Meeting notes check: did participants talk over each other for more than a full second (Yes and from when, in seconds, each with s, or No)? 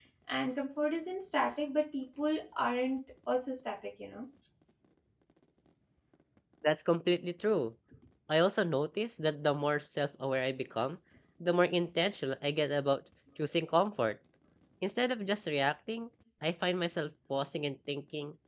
No